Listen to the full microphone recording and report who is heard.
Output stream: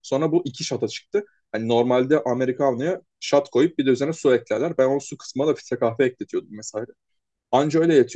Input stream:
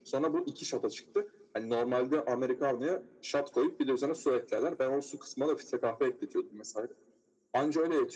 echo only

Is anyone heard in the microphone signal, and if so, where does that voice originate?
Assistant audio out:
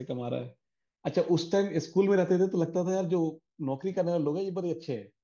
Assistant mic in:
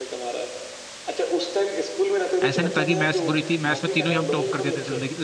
both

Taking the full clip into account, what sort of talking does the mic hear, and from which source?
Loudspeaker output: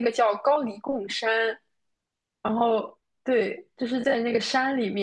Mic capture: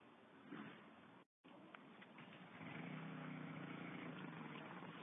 neither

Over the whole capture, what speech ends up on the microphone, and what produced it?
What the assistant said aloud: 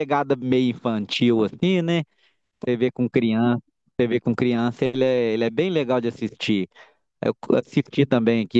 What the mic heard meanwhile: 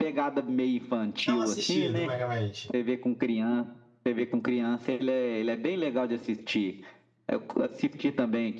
both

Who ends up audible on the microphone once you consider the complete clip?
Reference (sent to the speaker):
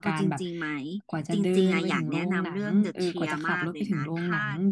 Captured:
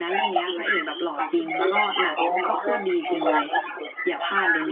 both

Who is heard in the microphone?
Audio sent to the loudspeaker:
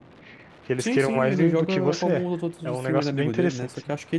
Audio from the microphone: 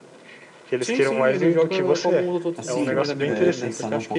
both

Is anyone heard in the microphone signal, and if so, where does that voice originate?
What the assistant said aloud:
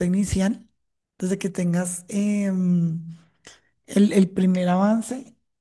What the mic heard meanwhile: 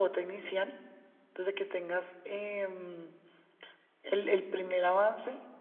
echo only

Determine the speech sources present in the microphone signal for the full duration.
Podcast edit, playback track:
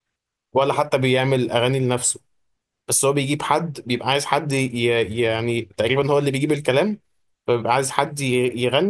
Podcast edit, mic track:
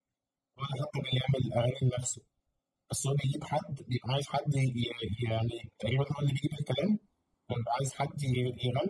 echo only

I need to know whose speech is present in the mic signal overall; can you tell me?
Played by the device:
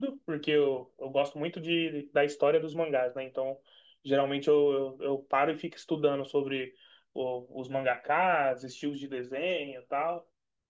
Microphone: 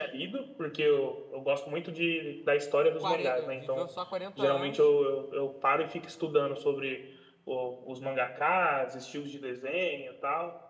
both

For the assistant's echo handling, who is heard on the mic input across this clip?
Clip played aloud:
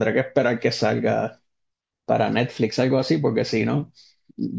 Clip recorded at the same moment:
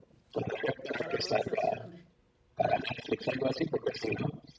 both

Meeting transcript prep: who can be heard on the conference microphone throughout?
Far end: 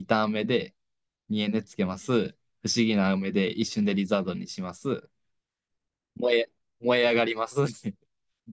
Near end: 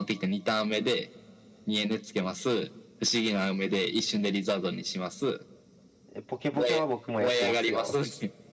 both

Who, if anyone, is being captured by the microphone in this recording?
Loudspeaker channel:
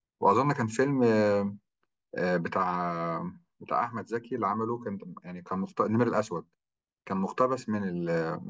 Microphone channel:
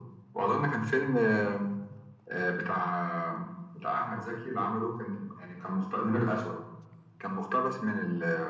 echo only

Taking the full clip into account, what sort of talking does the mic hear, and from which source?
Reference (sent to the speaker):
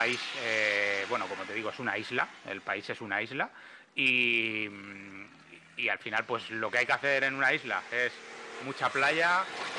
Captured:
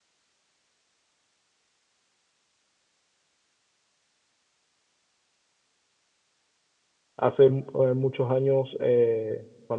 user only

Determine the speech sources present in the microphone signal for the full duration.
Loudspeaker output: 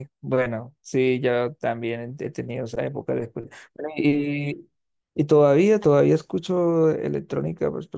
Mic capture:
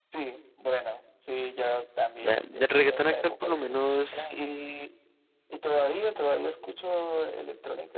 both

